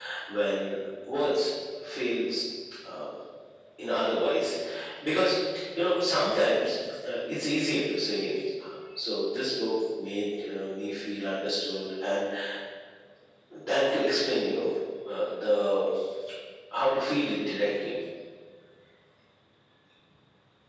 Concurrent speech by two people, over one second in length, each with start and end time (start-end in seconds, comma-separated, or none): none